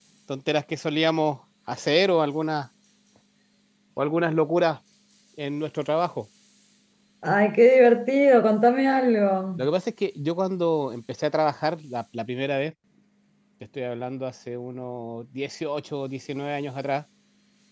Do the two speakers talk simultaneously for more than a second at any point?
No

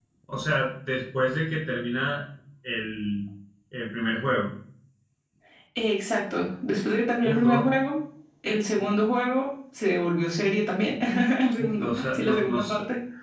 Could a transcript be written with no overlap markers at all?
No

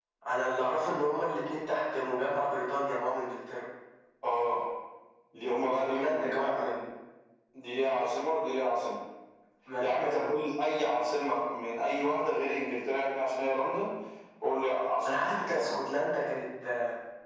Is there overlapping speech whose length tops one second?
Yes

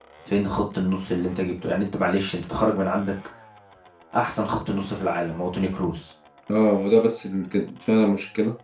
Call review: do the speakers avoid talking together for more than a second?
Yes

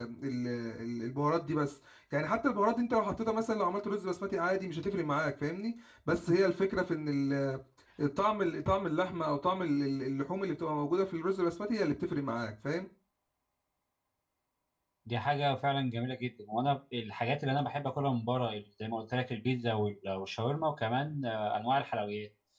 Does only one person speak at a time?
Yes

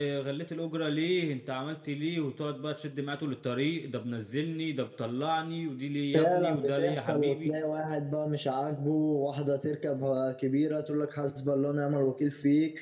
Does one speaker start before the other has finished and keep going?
Yes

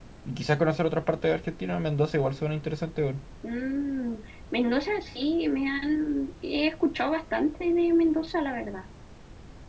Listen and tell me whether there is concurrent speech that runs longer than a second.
No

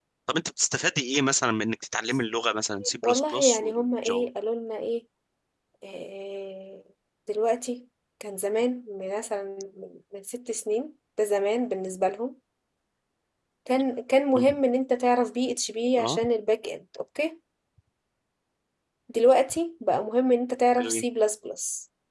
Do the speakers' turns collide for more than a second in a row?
Yes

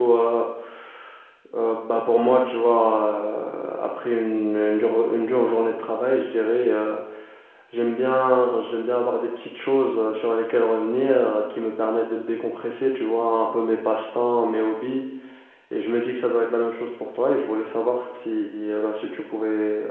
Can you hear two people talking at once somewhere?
No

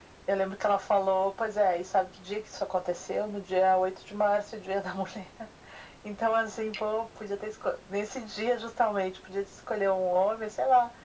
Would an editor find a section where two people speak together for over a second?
No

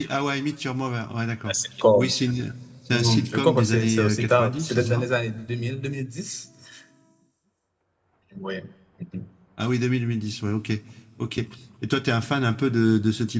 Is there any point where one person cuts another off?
Yes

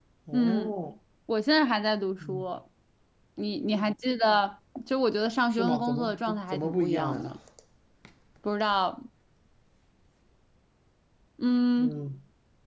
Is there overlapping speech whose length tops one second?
Yes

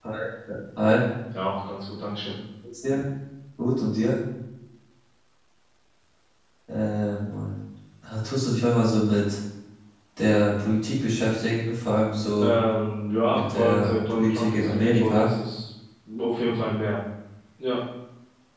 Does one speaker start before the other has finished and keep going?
Yes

